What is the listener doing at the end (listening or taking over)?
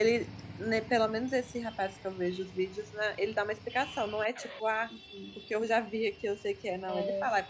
listening